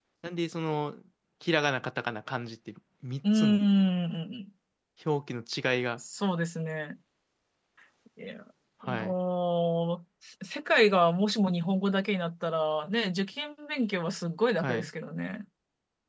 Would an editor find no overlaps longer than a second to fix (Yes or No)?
Yes